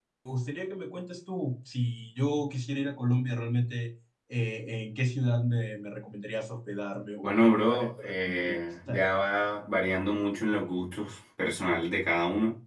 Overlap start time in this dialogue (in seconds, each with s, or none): 7.2 s